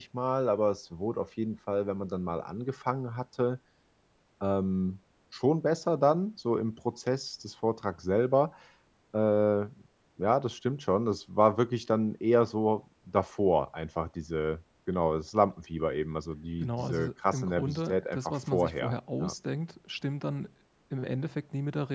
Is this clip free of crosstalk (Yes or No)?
No